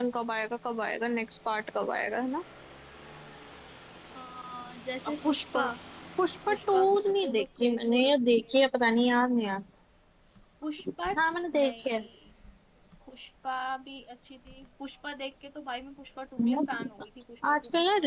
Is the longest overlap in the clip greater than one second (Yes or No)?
Yes